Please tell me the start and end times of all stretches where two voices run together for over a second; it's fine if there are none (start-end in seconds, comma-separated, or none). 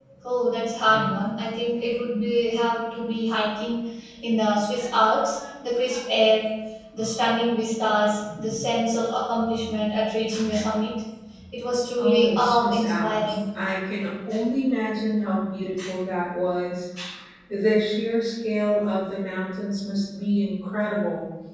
12.0-13.2